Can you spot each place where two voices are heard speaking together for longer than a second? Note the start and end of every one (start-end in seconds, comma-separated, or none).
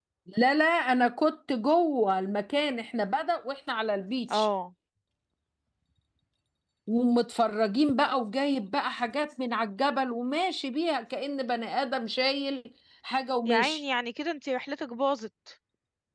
none